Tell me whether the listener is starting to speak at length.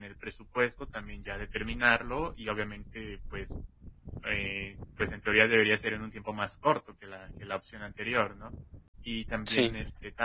No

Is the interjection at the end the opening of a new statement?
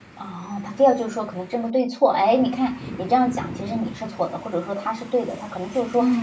Yes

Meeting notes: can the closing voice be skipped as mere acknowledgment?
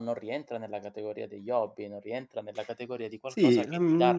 No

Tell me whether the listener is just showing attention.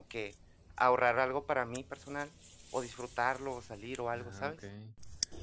No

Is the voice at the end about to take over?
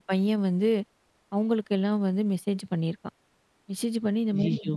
No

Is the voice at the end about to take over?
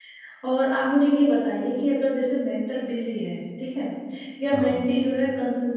No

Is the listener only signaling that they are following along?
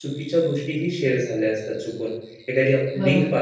Yes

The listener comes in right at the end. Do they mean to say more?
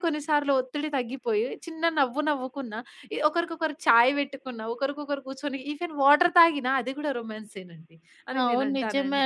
Yes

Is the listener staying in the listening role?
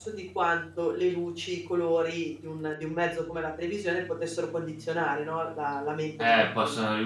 No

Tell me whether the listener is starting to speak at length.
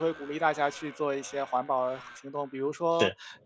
No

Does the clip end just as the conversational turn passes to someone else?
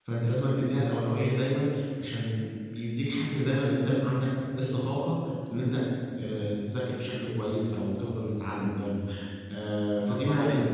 Yes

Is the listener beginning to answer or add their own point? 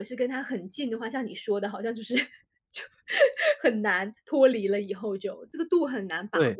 Yes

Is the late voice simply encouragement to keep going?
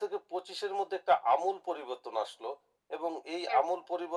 Yes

